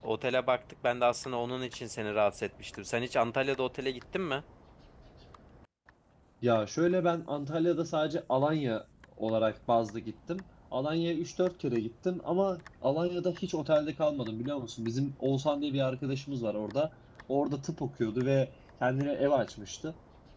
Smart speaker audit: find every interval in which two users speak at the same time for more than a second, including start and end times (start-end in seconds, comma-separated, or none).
none